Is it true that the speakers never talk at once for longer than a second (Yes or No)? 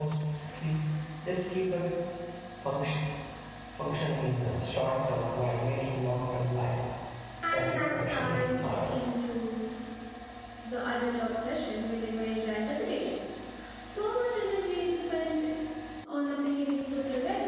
No